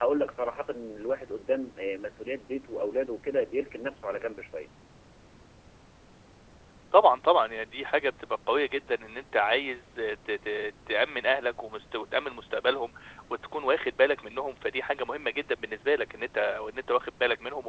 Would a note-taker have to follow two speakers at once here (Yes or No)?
No